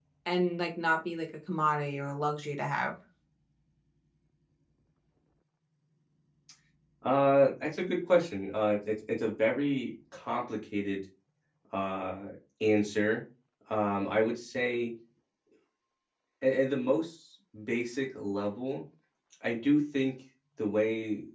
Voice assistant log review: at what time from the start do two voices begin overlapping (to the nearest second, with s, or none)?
none